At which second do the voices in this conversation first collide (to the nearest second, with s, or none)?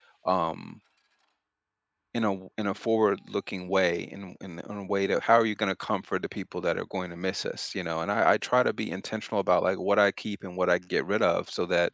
none